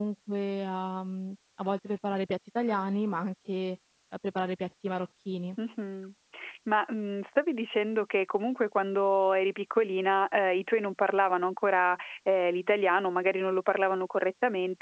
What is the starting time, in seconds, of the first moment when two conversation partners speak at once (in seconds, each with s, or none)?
none